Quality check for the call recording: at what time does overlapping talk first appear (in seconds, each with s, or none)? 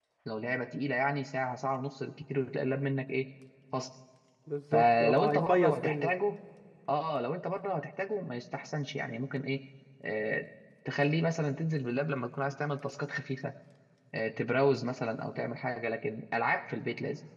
4.7 s